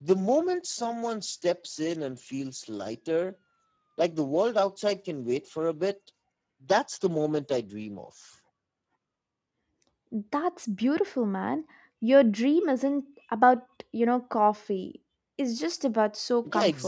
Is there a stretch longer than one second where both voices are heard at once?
No

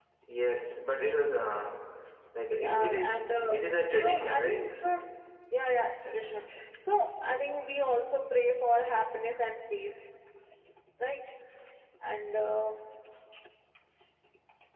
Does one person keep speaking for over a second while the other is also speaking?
Yes, from 2.6 s

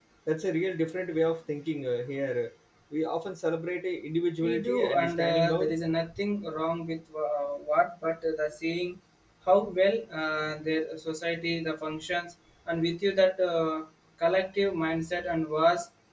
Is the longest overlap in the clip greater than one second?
Yes, from 4.4 s

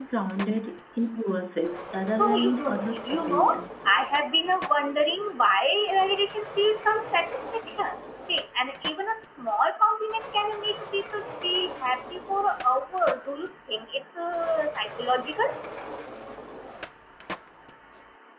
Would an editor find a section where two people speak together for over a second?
Yes, from 2.2 s

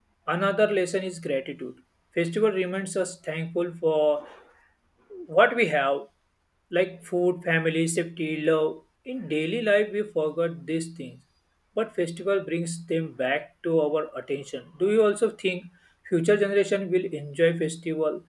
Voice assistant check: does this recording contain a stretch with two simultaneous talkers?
No

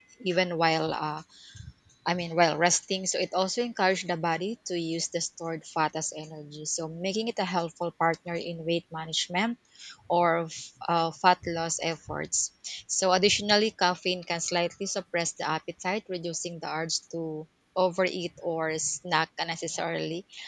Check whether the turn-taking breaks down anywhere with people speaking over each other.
No

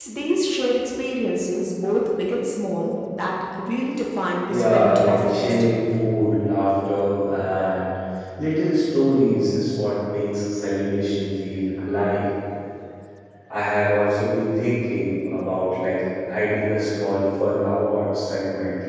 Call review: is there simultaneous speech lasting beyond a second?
Yes, from 4.5 s

